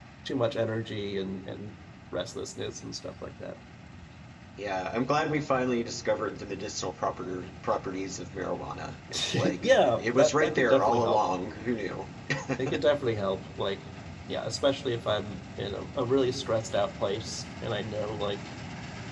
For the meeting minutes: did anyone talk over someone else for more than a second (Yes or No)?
Yes